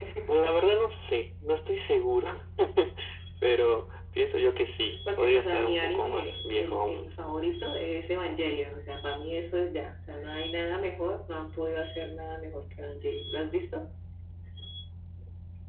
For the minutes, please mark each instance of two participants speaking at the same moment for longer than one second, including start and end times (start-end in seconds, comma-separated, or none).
5.2-7.1